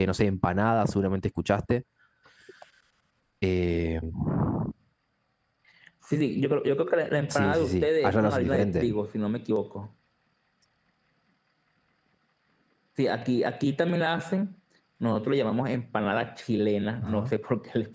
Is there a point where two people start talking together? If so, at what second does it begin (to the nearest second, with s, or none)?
7 s